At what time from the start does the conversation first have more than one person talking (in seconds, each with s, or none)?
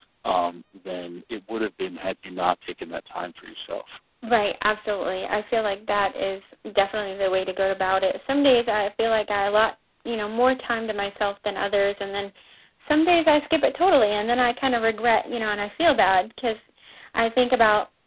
none